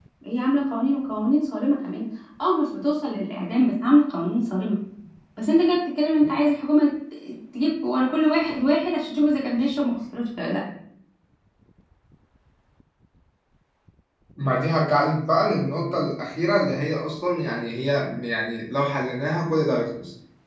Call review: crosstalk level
none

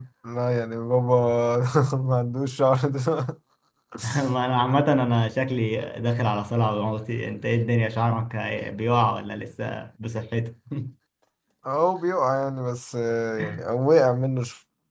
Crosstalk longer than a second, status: none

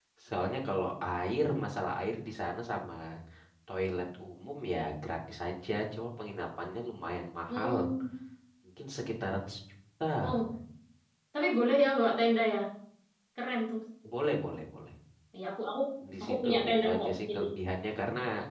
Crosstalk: present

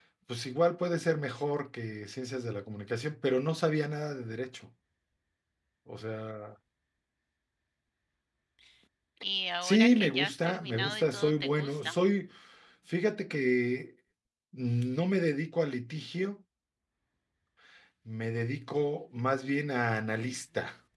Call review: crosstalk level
present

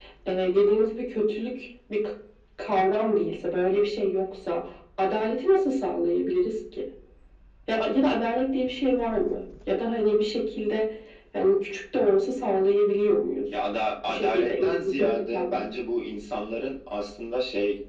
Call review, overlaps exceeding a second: present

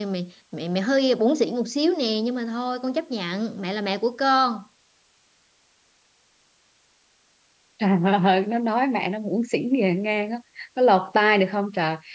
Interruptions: none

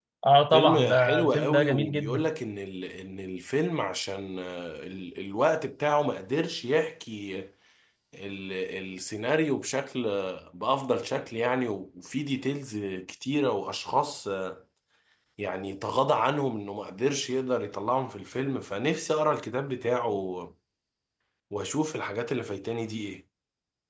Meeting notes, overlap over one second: present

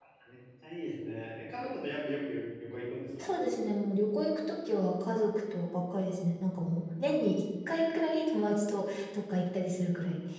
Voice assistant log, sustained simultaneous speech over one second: none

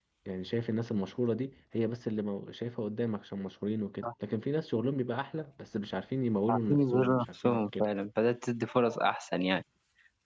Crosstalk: present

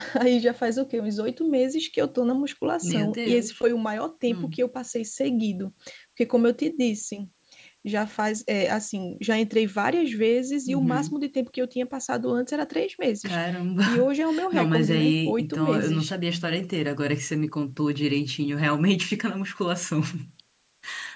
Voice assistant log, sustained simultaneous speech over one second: present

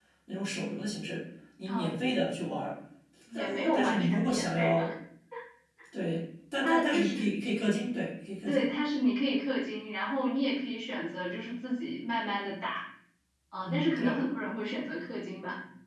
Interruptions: present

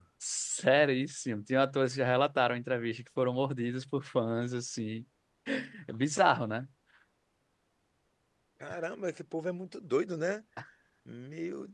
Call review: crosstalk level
none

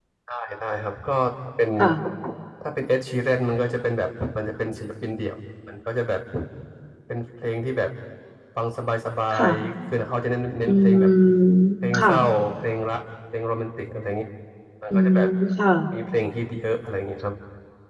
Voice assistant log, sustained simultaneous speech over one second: none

